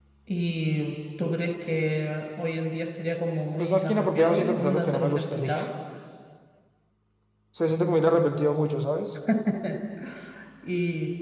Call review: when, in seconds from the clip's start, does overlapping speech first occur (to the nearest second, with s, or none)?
4 s